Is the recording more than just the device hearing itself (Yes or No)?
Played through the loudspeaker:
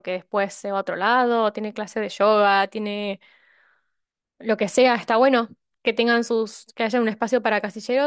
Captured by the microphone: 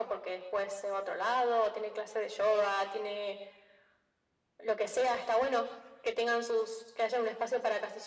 No